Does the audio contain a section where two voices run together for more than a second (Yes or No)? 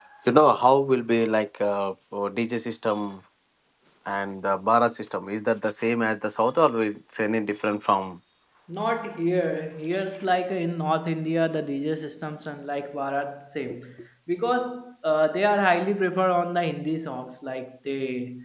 No